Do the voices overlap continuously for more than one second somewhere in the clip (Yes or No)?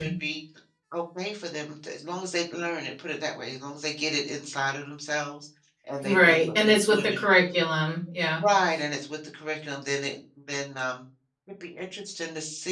Yes